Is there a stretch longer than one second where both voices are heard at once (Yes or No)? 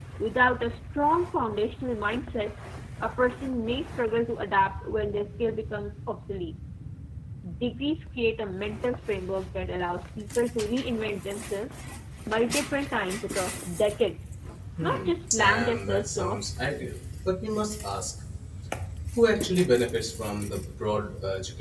Yes